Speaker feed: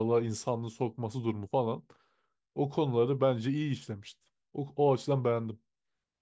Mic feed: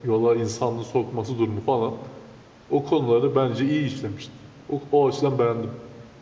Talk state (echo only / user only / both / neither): echo only